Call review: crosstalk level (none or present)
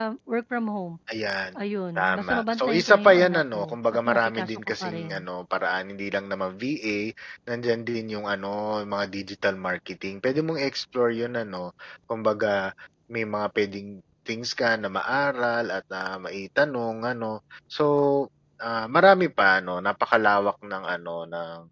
present